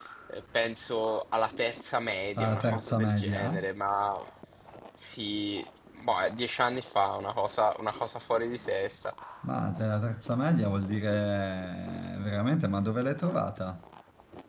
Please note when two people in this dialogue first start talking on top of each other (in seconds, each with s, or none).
2.4 s